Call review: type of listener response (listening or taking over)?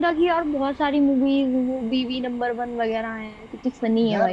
taking over